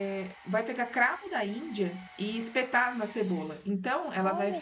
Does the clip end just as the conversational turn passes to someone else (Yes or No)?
No